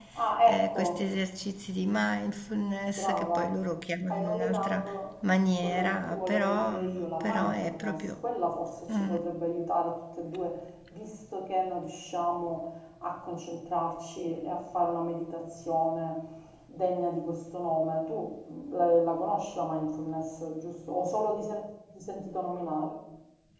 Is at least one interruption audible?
Yes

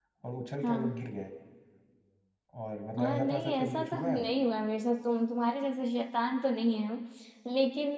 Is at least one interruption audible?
Yes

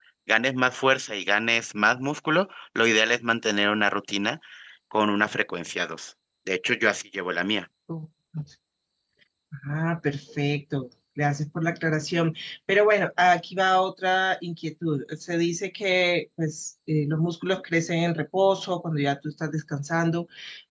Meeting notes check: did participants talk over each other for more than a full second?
No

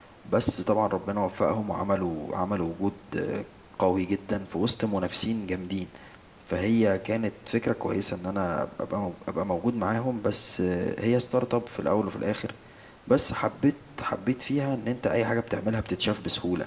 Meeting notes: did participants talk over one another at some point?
No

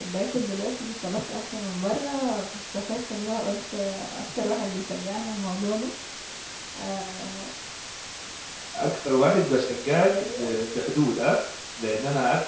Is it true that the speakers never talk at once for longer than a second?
Yes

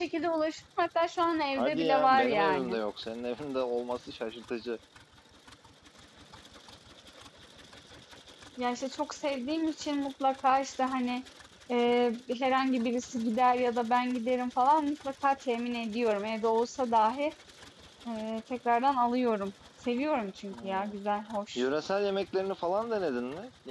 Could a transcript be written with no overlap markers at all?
No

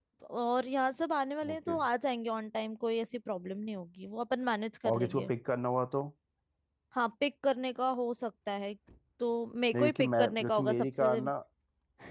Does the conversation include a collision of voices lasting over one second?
Yes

